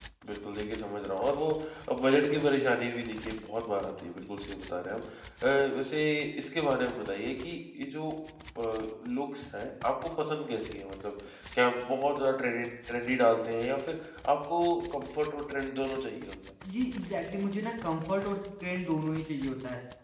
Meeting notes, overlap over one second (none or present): none